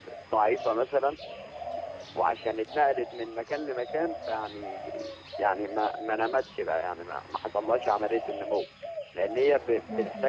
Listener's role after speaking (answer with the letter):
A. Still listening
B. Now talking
A